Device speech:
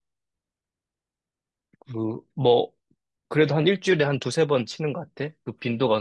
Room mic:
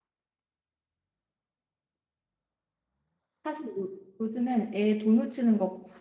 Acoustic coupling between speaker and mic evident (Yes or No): No